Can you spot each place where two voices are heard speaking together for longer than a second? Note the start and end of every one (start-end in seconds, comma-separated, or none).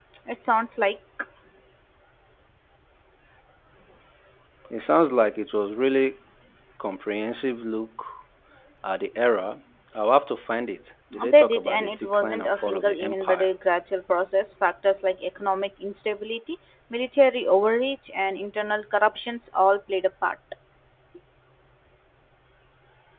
11.3-13.5